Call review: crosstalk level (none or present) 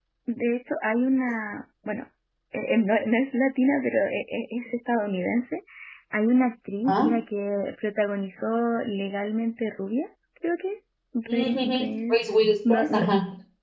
present